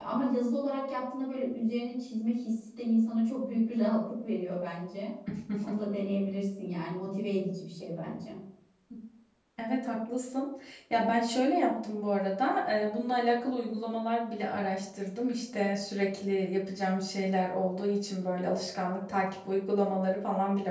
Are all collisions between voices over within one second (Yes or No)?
Yes